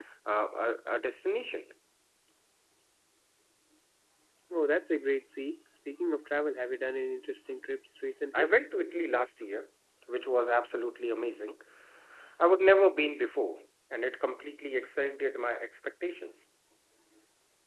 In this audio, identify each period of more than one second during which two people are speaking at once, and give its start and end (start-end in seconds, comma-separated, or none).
none